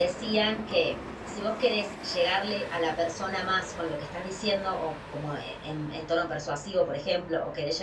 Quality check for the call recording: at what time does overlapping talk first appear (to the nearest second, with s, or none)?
none